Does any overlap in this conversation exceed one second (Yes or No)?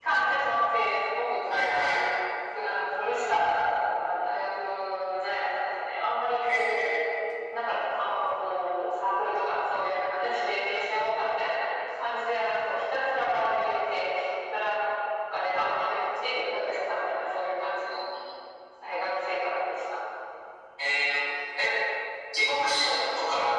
No